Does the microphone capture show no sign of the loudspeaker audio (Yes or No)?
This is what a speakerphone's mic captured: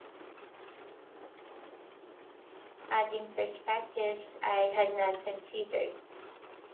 Yes